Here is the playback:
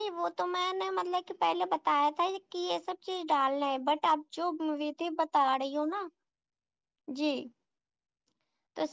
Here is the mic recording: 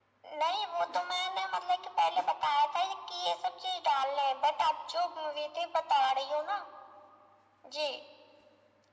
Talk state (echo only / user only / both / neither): echo only